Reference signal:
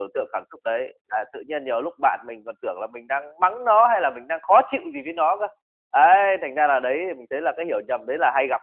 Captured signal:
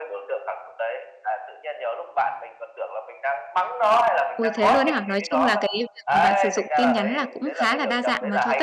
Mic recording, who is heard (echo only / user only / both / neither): both